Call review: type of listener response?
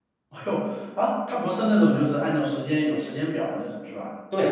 taking over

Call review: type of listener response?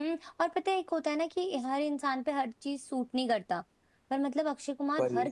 listening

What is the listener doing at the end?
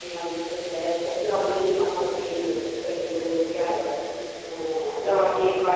taking over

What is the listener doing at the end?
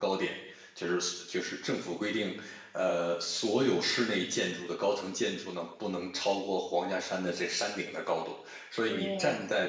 listening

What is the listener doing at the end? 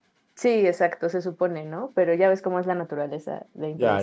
taking over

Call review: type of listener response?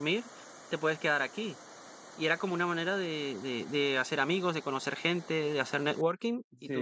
listening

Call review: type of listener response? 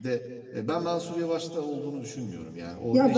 taking over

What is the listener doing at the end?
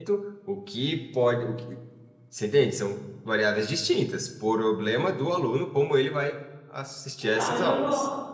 taking over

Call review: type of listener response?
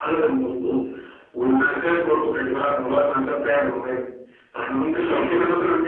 listening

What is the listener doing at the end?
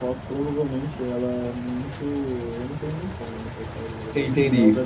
listening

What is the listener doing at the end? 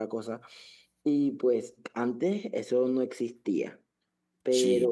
listening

